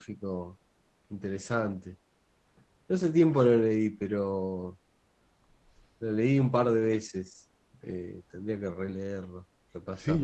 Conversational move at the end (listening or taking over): taking over